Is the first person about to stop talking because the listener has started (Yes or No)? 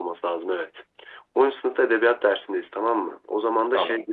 No